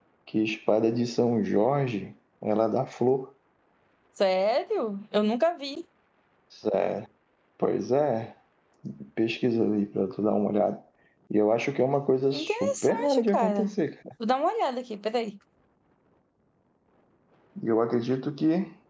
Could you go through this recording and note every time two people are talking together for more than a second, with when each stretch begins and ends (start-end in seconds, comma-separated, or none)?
12.3-13.8